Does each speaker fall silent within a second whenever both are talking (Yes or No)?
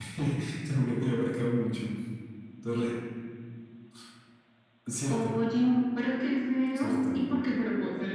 Yes